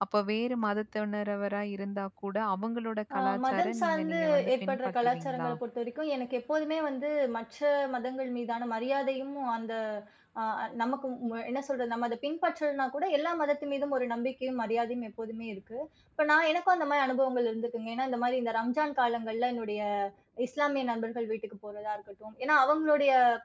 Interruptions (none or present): present